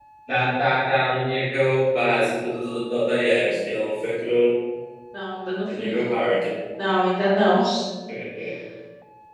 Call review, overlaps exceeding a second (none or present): none